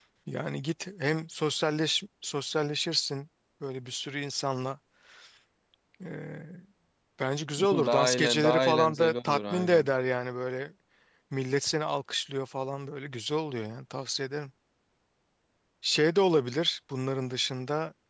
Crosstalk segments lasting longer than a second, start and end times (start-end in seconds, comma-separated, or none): 7.6-9.9